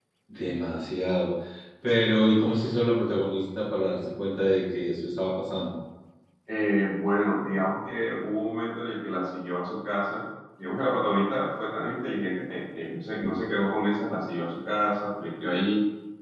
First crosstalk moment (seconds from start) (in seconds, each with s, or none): none